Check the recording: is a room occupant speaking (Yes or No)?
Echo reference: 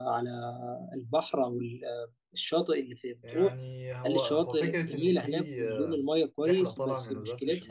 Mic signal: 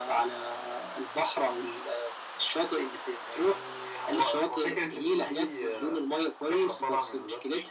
No